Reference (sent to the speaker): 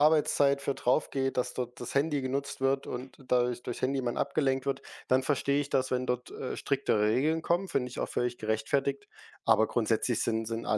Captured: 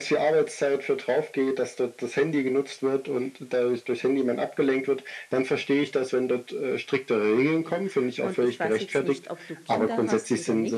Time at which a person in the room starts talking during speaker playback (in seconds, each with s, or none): 7.4 s